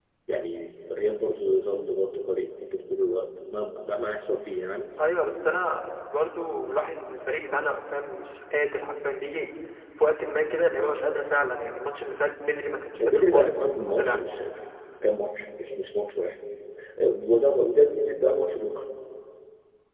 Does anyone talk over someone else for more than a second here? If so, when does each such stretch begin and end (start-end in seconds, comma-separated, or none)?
13.0-14.2